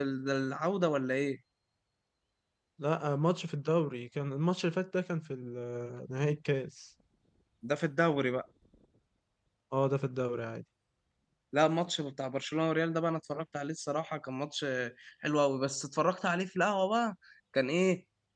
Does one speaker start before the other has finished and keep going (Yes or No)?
No